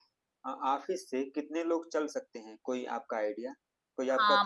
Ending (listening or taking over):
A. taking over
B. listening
A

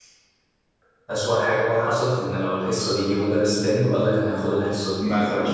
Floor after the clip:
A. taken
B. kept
A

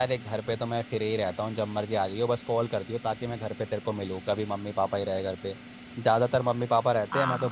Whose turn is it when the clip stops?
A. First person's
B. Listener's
A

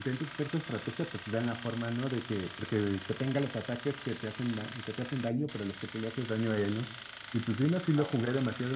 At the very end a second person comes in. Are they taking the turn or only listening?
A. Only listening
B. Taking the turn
A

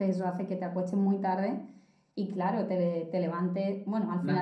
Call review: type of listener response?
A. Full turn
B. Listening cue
B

